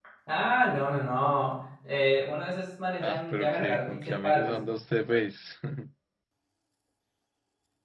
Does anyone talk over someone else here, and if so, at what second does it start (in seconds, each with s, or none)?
3.0 s